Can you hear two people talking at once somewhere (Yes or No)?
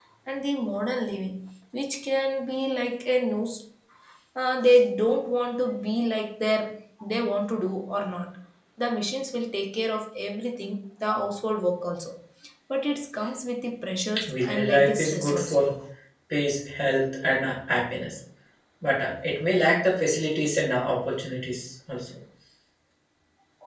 Yes